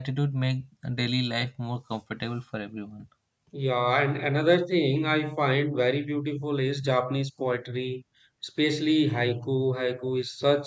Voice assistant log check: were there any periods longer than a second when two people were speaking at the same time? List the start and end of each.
none

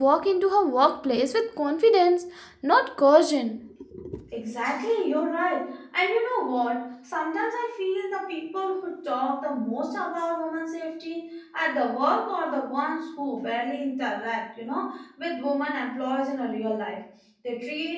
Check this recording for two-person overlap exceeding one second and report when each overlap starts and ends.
none

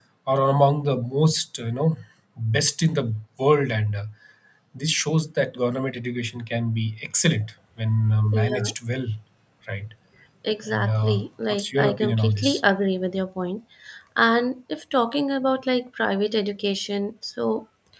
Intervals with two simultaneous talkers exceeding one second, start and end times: 10.7-12.6

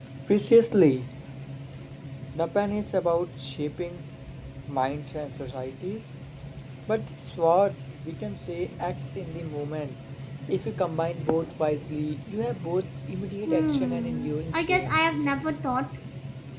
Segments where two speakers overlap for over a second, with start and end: 13.5-15.0

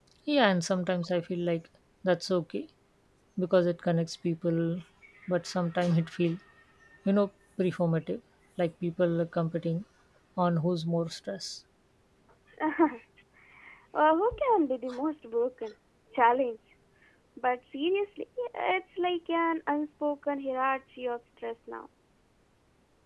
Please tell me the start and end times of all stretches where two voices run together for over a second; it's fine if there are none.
none

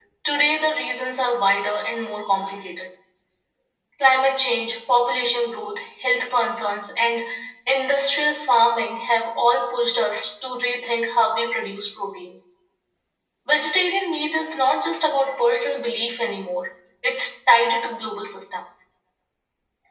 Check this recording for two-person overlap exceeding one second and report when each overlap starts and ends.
none

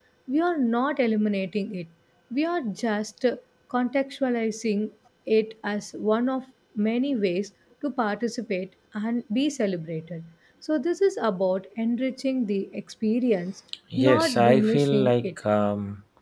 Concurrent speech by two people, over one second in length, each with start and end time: 14.0-15.3

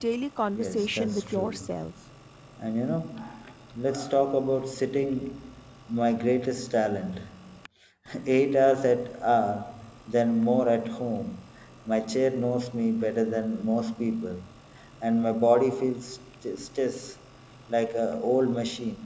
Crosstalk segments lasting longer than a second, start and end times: 0.5-1.8

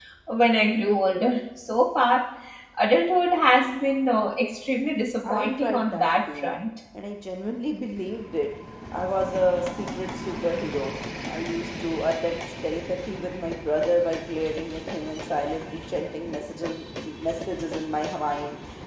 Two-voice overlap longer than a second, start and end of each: 5.2-6.6

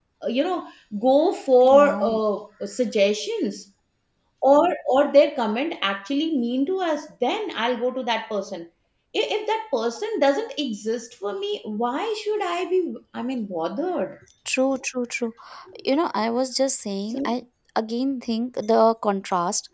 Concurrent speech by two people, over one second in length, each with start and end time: none

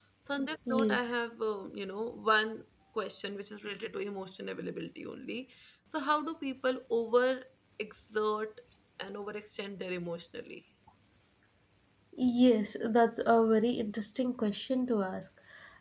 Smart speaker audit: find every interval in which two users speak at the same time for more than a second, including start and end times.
none

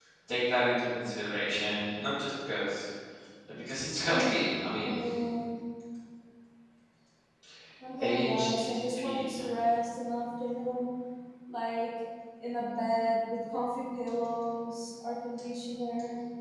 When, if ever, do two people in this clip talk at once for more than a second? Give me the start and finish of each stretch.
8.0-9.2

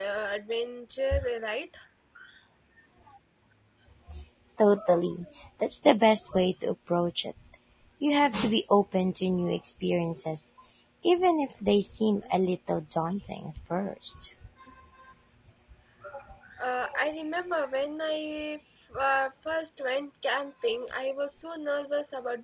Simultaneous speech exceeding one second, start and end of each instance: none

